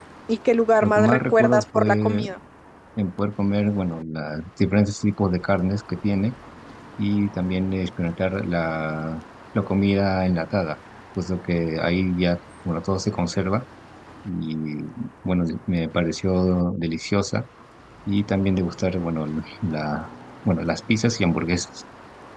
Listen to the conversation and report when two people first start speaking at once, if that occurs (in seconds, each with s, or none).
0.8 s